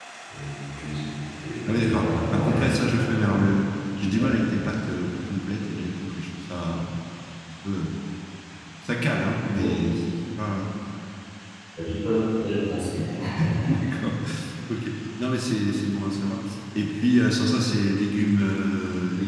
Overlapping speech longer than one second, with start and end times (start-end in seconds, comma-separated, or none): 1.7-3.5